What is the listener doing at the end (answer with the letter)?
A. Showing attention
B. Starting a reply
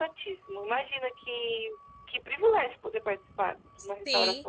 B